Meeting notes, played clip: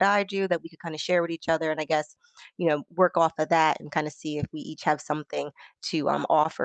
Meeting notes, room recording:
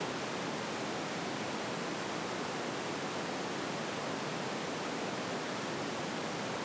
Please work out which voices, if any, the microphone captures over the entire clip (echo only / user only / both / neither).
neither